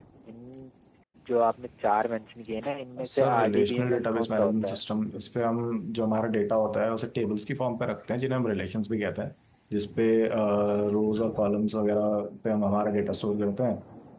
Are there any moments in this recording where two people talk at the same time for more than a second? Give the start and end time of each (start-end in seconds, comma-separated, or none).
3.1-4.8